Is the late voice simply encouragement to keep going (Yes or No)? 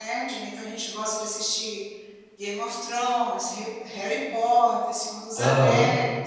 Yes